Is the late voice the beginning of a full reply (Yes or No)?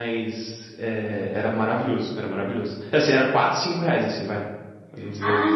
Yes